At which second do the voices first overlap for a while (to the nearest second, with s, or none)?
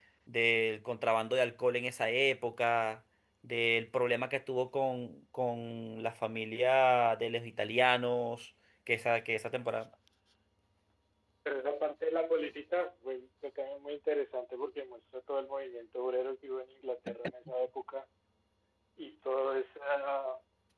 none